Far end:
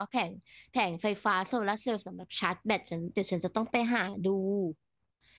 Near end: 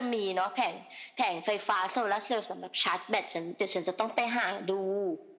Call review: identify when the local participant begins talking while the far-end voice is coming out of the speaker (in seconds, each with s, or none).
none